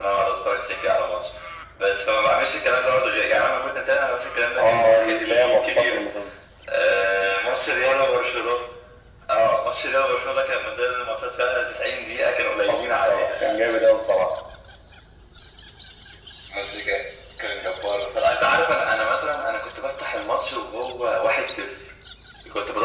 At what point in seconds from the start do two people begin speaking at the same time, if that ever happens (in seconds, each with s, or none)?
4.6 s